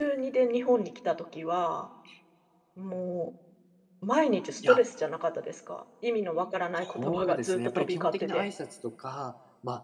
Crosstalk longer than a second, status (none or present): present